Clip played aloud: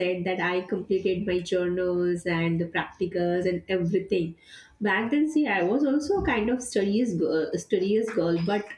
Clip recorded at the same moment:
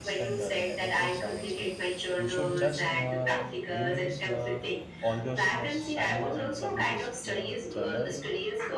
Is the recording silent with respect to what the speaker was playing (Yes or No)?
No